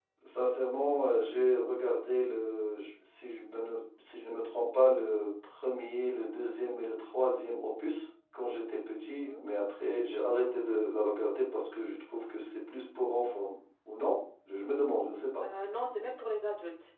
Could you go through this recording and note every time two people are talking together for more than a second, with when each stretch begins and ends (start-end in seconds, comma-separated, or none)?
none